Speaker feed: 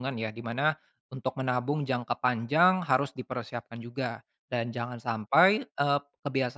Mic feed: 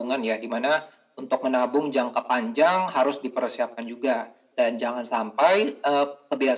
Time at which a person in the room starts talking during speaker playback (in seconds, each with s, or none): none